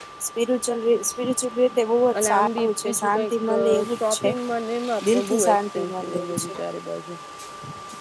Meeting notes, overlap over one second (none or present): present